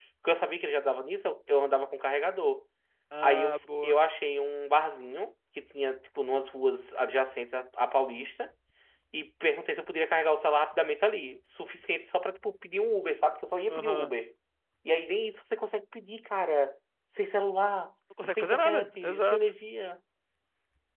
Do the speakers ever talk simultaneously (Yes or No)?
Yes